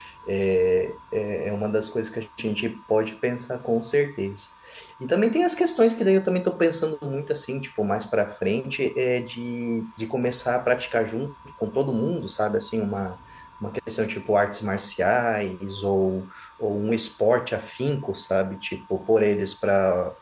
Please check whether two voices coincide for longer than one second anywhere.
No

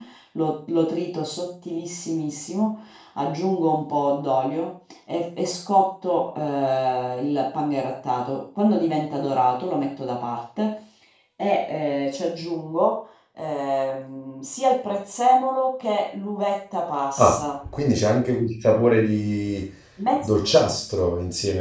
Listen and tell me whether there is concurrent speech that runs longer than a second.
No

